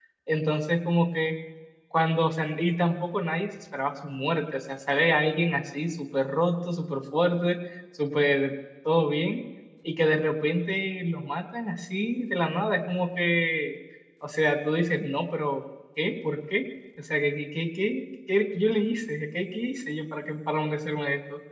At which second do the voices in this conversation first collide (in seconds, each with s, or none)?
none